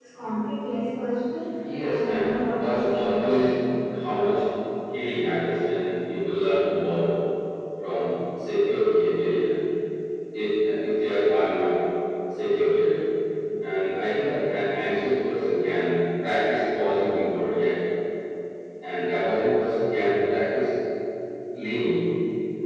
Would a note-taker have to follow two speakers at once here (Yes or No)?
Yes